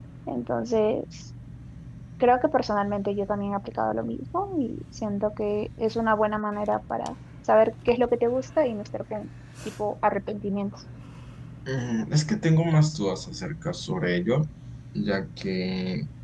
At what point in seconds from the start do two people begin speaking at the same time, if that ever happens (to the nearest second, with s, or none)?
none